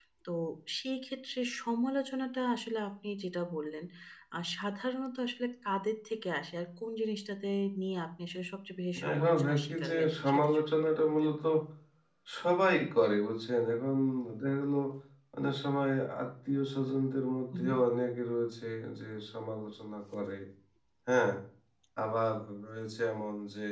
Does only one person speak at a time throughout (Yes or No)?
No